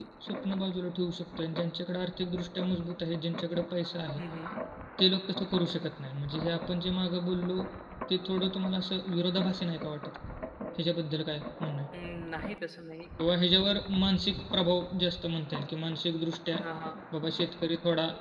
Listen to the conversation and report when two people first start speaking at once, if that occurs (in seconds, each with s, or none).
none